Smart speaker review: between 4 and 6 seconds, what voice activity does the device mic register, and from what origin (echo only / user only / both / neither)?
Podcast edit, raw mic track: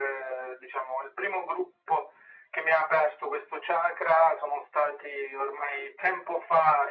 echo only